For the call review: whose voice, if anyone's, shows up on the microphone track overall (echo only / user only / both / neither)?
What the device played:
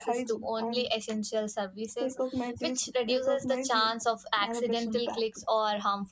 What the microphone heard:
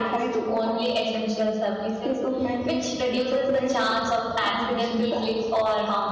echo only